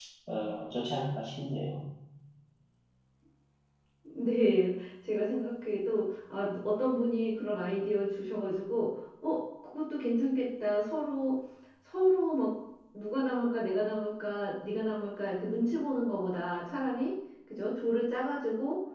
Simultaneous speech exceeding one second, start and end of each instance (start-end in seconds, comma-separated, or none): none